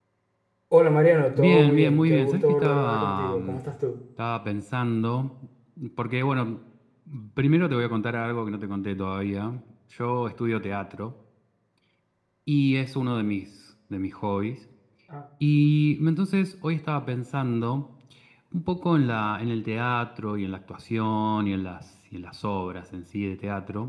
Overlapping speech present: Yes, from 1.4 s

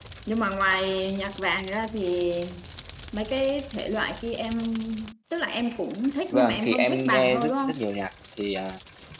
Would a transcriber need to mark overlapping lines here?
Yes, from 6.3 s

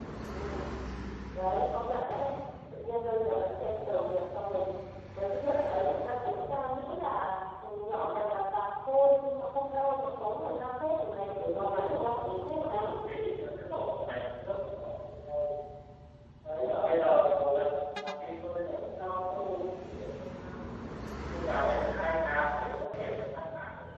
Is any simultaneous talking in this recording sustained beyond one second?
Yes, from 11.2 s

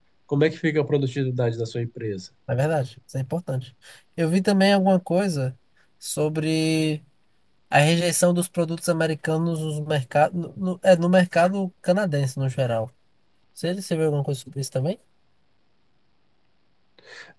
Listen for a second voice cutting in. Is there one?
No

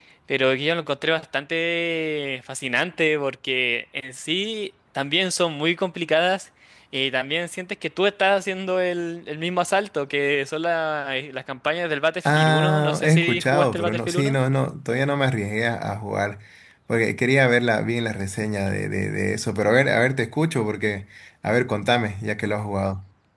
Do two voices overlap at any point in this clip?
Yes, from 12.2 s

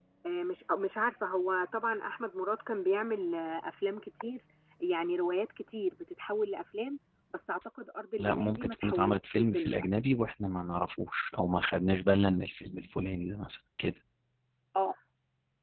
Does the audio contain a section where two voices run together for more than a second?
Yes, from 8.2 s

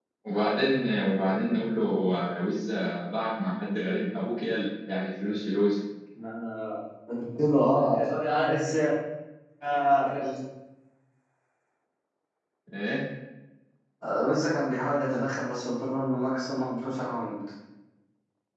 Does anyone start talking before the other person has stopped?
No

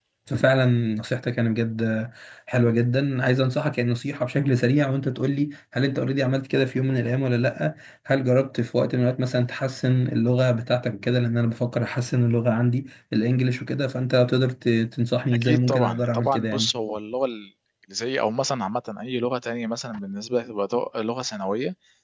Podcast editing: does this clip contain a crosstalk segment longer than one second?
Yes, from 15.3 s

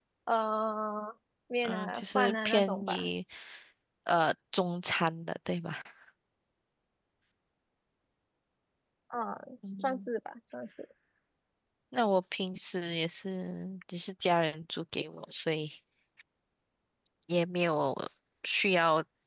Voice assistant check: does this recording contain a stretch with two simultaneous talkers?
Yes, from 1.6 s

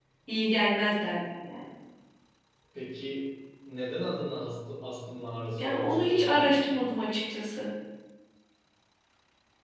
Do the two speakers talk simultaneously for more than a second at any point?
Yes, from 5.6 s

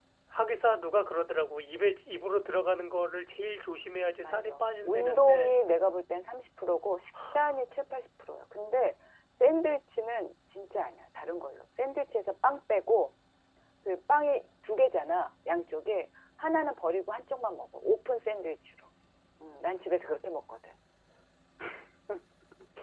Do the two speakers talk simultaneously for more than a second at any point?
Yes, from 4.2 s

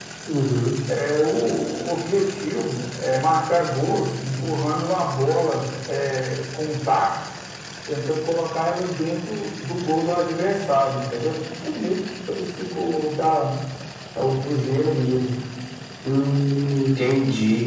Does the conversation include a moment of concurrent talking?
No

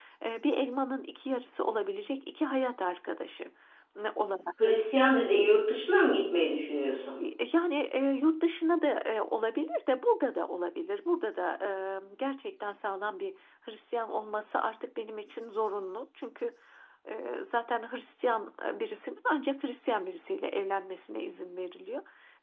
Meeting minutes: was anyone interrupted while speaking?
No

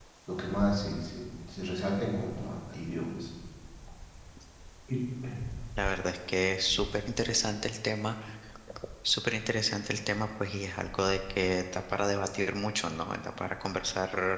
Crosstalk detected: No

